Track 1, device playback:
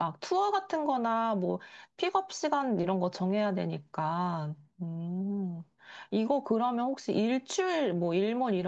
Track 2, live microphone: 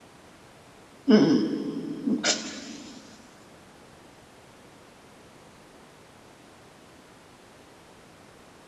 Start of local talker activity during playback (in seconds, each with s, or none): 1.1 s